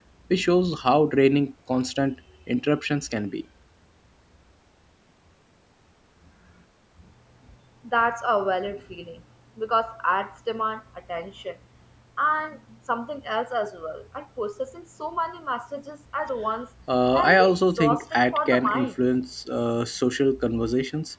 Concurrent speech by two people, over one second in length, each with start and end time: 17.1-18.9

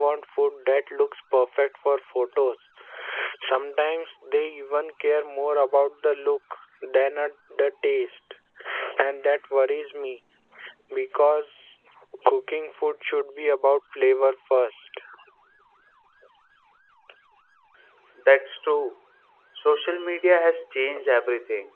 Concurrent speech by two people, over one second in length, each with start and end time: none

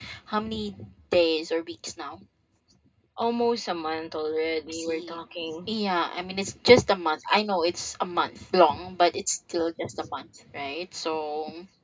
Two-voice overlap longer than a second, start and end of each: none

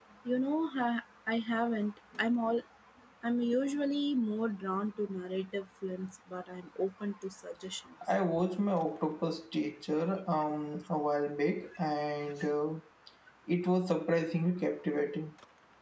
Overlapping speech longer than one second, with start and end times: none

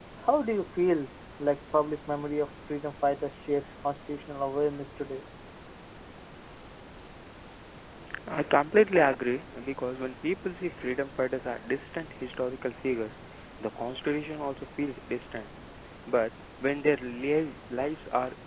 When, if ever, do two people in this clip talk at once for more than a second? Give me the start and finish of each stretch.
none

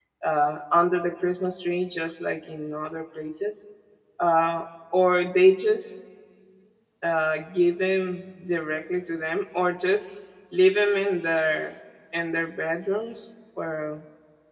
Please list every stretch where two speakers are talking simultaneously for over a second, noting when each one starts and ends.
none

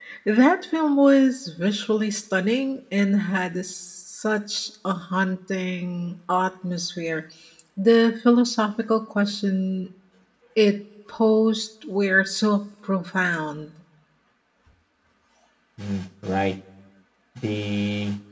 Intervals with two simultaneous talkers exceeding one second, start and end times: none

